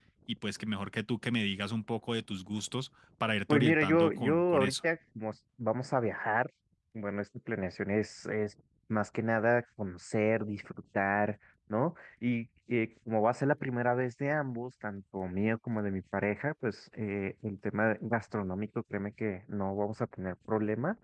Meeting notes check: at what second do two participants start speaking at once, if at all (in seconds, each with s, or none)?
3.5 s